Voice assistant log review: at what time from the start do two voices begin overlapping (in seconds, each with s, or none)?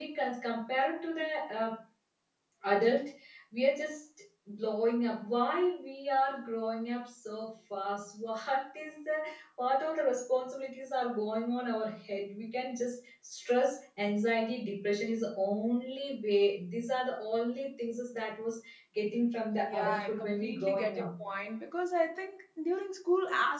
19.6 s